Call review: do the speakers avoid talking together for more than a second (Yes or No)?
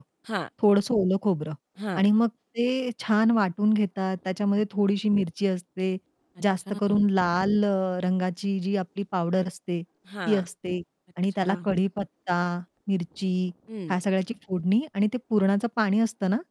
Yes